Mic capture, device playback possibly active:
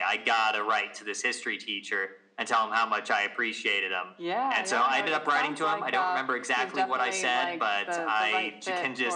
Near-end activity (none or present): none